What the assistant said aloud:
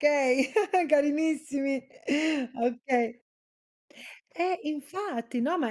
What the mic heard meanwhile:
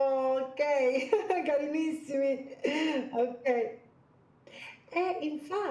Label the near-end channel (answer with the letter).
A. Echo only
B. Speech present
A